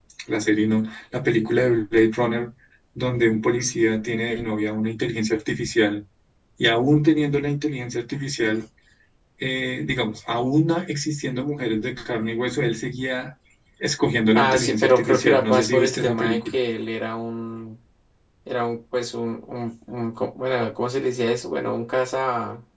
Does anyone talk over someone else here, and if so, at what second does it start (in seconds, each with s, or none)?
14.3 s